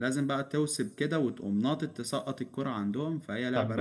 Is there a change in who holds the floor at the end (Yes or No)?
Yes